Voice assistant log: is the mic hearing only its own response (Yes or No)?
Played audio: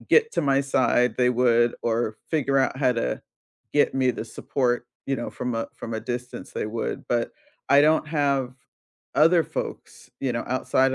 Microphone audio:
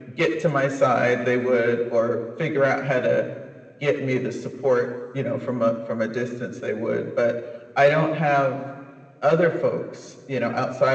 Yes